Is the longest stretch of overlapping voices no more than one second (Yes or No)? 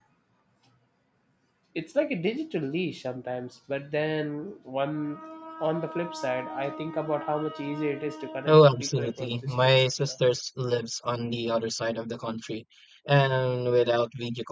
No